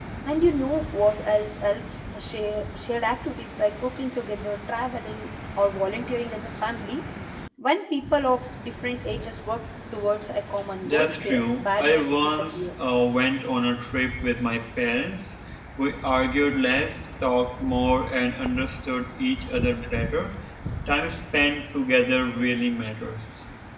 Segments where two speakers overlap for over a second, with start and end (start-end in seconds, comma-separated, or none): 10.8-12.7